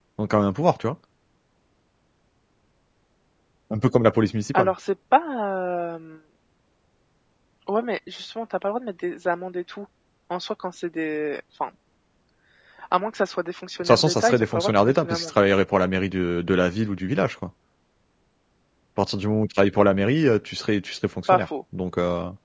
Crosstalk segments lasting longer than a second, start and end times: 13.8-15.3

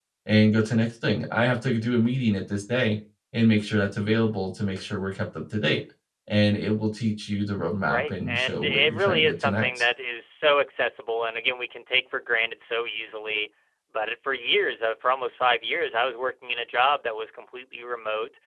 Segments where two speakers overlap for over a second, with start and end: 7.9-9.7

